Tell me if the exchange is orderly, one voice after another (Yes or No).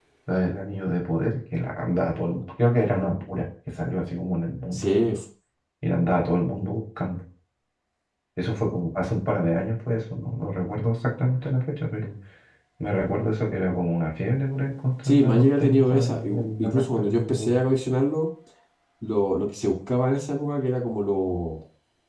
No